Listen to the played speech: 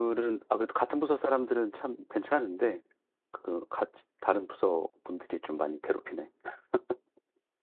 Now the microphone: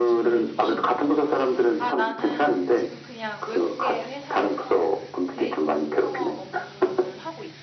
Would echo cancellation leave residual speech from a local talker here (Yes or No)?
Yes